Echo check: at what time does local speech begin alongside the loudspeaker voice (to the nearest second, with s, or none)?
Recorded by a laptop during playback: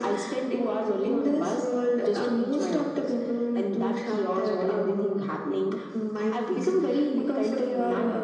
none